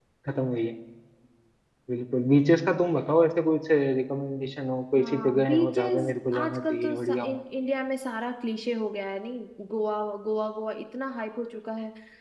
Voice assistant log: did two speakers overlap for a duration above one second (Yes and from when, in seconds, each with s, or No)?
Yes, from 5.0 s